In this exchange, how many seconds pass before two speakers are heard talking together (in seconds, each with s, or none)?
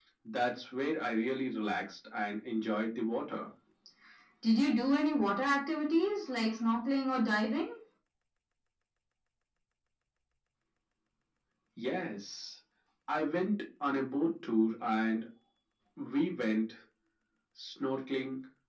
none